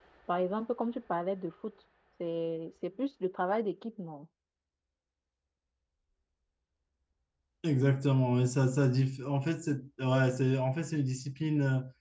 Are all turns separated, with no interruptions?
Yes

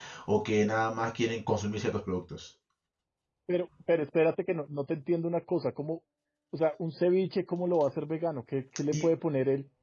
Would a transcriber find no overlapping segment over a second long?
Yes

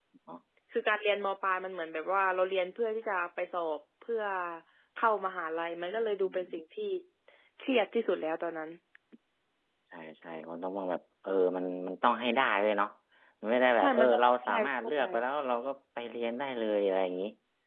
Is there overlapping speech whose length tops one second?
Yes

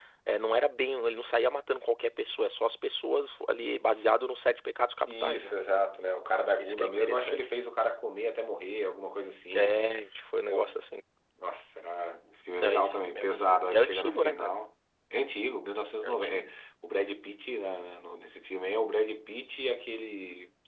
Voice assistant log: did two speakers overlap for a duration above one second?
Yes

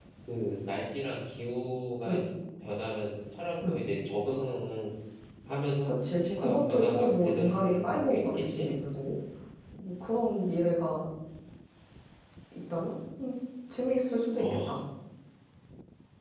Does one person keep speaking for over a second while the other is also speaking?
Yes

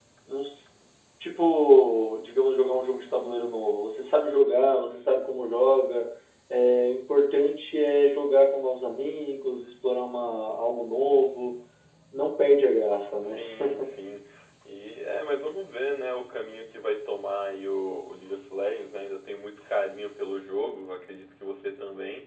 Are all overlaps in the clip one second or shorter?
Yes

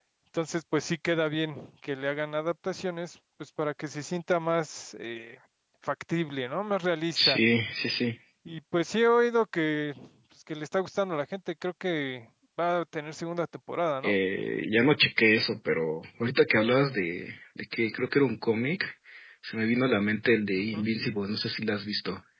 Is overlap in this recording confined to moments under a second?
Yes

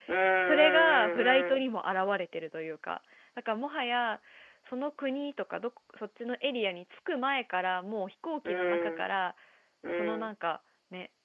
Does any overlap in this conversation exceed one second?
Yes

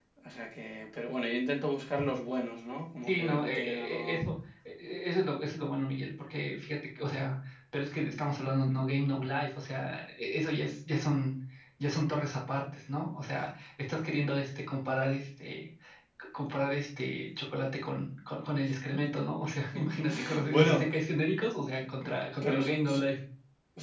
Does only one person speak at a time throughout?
No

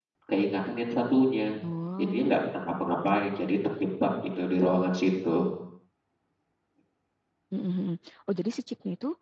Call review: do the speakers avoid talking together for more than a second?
Yes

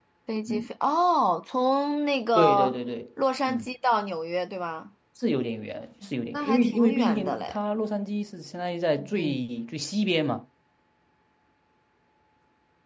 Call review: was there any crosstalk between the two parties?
Yes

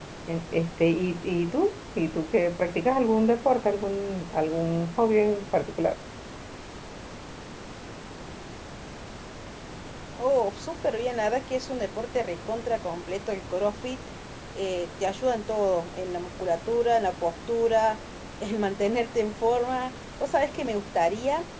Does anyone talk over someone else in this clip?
No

